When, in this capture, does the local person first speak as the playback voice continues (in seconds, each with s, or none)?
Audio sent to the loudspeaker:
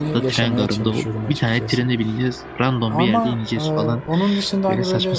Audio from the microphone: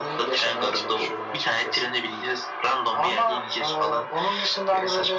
none